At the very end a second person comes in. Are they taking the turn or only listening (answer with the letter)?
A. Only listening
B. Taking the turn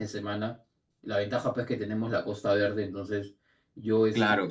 A